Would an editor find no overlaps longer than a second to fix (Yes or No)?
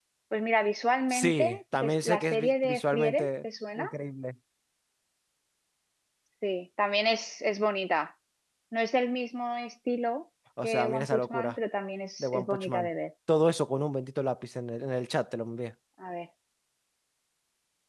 No